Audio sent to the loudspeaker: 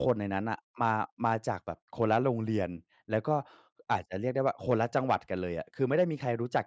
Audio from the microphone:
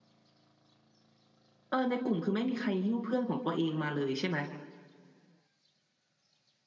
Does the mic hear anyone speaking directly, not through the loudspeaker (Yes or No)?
Yes